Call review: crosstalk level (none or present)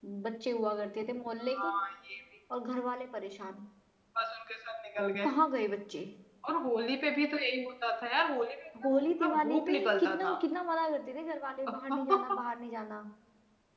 present